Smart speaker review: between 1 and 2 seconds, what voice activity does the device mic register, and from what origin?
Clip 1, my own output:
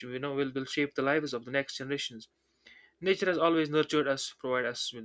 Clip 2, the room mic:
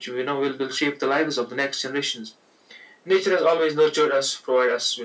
echo only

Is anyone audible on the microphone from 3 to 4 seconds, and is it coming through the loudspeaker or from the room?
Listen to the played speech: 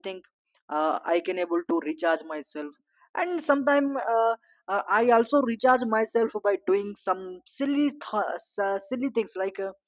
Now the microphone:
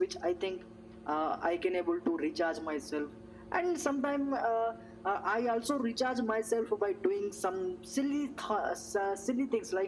echo only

